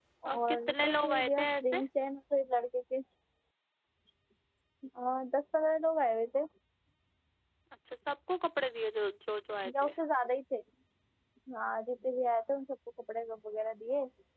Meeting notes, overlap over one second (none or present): present